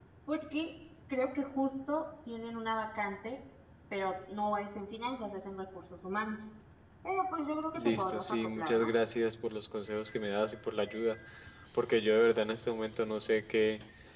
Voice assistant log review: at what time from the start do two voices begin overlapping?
7.8 s

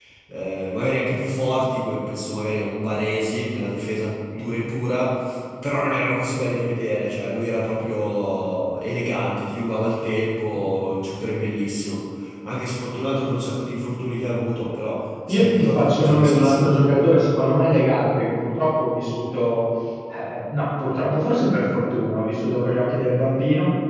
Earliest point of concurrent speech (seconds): 15.3 s

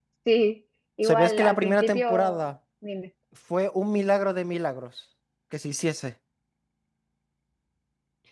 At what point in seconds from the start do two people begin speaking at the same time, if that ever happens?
1.0 s

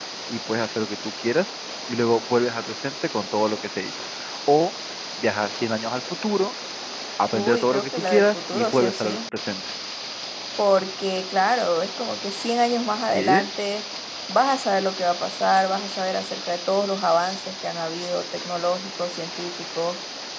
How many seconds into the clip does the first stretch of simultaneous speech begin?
7.3 s

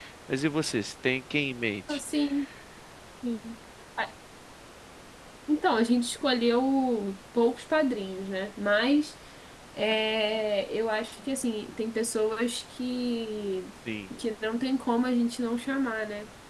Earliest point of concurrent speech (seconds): none

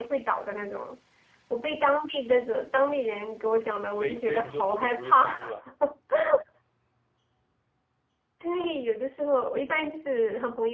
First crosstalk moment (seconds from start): 4.0 s

